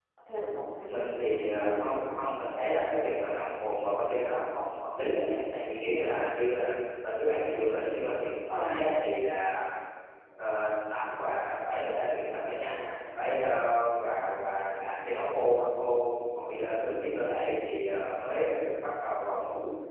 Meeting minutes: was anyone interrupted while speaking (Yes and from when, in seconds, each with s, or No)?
Yes, from 0.9 s